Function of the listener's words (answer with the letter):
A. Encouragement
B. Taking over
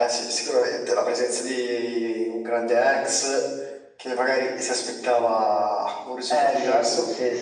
B